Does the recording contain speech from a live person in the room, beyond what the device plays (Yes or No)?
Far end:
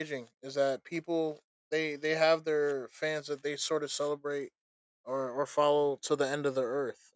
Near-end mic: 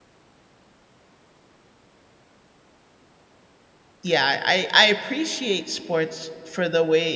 Yes